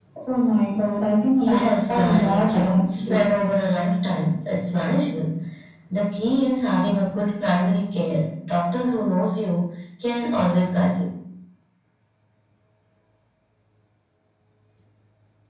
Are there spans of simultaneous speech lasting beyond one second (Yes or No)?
Yes